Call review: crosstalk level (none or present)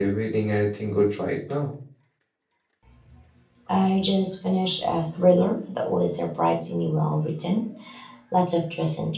none